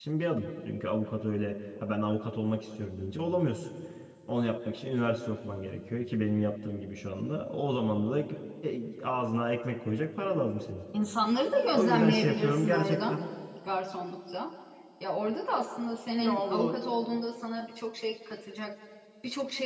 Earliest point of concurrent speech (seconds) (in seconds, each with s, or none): 11.6 s